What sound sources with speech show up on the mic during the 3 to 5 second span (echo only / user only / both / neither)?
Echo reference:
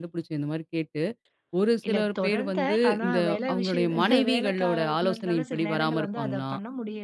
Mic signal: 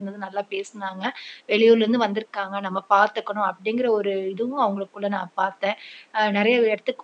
user only